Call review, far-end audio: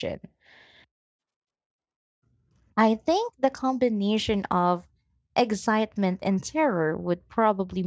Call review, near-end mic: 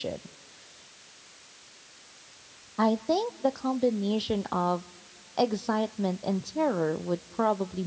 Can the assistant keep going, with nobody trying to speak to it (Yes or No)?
Yes